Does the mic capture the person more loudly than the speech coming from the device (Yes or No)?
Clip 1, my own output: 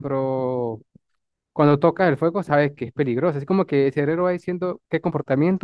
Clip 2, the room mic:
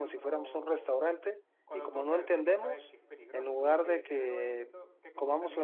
Yes